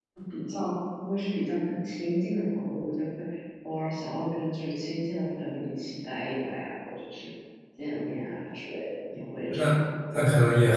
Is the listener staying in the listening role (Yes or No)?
No